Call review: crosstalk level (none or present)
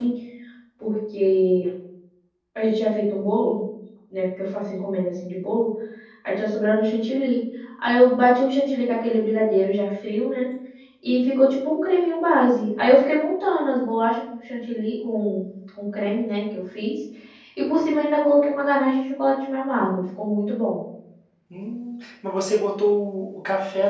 none